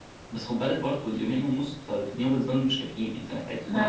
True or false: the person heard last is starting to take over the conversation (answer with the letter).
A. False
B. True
B